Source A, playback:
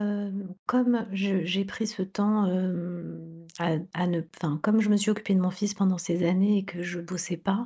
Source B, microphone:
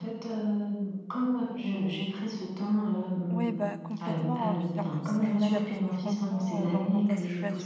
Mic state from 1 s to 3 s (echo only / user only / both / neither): echo only